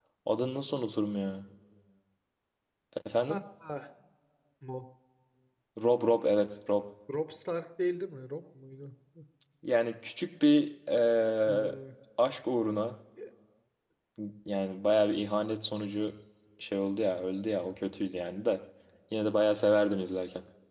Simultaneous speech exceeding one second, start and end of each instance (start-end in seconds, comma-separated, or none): none